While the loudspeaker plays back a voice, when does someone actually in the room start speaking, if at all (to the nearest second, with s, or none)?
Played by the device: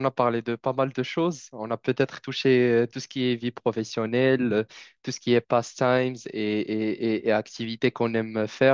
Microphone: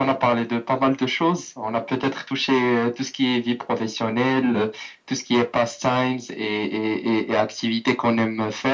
none